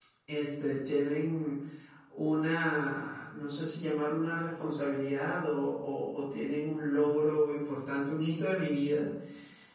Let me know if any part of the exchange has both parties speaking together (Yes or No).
No